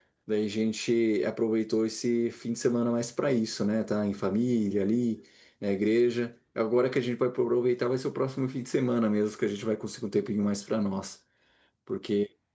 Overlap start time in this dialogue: none

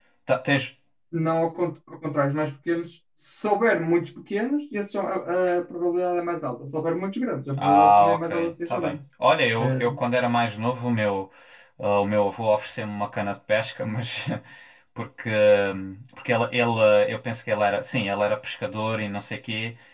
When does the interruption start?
7.6 s

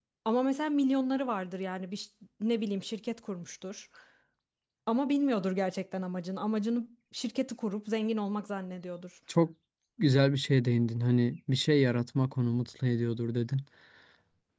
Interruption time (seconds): none

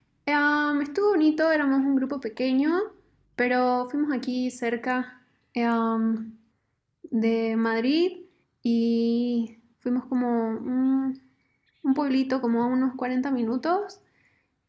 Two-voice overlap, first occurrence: none

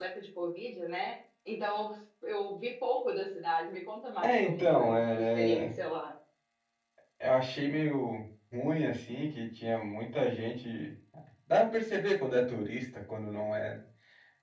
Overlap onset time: 4.2 s

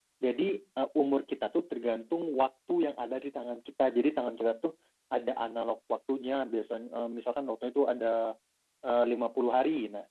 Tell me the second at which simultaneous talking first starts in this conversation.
none

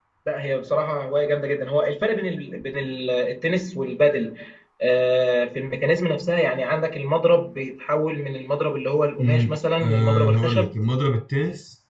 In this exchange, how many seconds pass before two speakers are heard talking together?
9.2 s

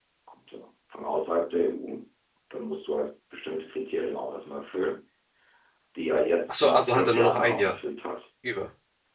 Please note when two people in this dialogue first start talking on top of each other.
6.5 s

